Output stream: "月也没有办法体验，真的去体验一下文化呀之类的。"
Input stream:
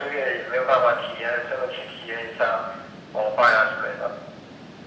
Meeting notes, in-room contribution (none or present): none